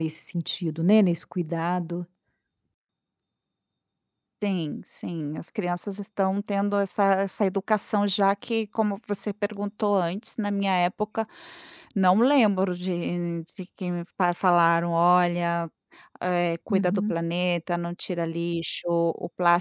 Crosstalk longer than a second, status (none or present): none